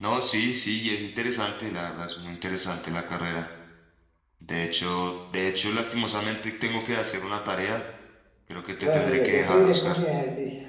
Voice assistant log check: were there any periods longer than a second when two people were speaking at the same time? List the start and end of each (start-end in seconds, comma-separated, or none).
8.8-10.0